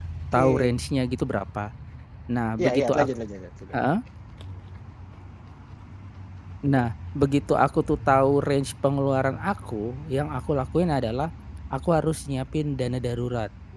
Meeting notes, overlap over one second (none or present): none